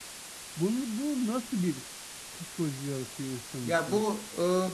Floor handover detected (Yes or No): Yes